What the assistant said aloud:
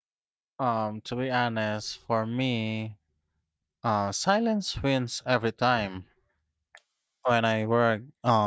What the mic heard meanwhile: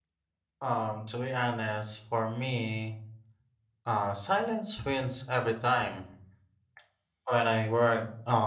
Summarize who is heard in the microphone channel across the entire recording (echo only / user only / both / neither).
echo only